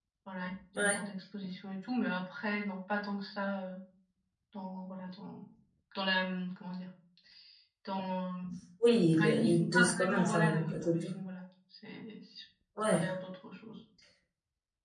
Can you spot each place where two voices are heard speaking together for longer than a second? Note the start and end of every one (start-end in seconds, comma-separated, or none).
9.2-11.1